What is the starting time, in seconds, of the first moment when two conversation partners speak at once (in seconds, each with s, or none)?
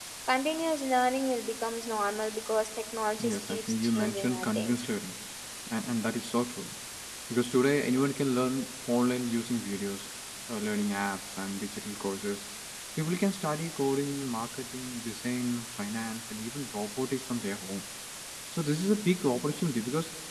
3.2 s